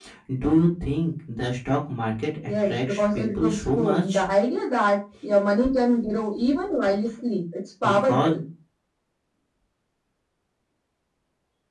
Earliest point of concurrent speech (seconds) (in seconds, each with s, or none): 2.6 s